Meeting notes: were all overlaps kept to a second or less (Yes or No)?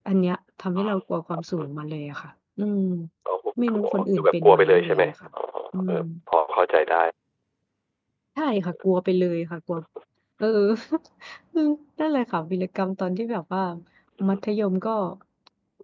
No